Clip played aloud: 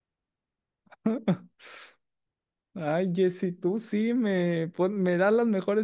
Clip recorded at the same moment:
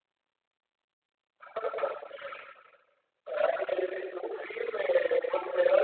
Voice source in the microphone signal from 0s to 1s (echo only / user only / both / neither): neither